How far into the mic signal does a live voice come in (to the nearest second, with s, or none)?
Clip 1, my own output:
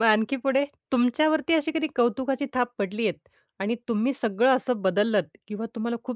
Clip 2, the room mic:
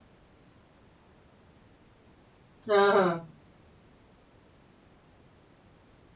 3 s